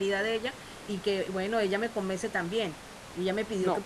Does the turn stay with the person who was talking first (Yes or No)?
Yes